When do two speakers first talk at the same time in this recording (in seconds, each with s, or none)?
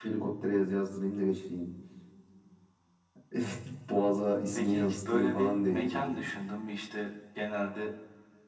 4.5 s